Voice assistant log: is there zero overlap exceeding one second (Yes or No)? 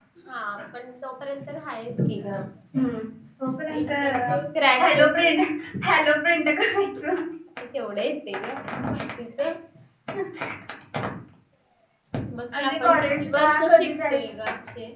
No